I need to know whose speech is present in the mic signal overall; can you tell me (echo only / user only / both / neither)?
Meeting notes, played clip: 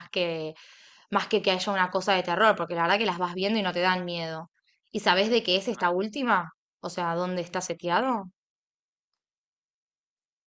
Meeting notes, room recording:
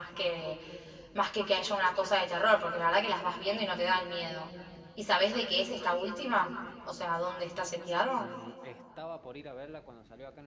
both